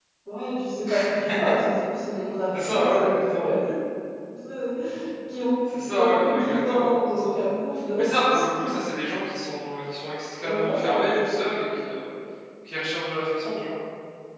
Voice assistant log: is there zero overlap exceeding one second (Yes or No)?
No